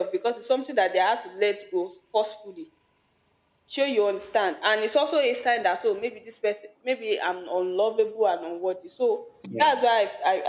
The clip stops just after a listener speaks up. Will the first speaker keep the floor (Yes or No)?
Yes